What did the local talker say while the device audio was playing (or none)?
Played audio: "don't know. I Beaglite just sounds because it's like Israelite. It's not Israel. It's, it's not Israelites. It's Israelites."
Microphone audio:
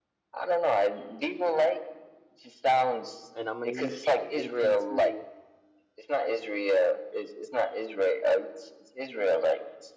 and I'm gonna use Chat GPT